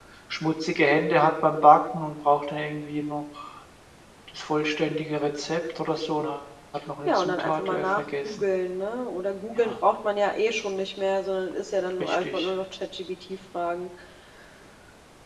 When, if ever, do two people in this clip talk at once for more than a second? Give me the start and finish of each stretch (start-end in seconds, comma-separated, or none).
7.0-8.4